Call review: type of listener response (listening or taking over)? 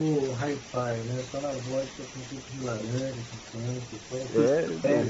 taking over